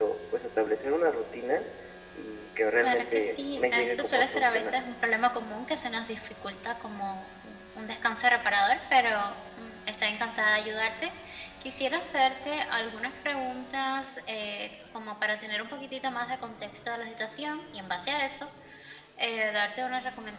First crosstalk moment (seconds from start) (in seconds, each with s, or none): 2.8 s